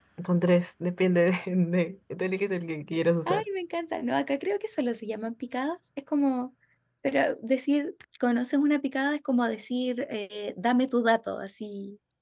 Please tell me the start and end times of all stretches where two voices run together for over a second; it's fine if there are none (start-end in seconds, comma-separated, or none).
none